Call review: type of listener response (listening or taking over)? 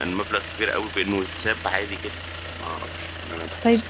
taking over